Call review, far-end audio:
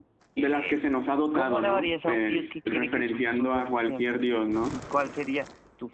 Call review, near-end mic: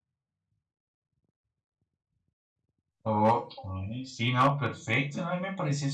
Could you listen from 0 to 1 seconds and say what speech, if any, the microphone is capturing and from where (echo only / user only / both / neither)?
neither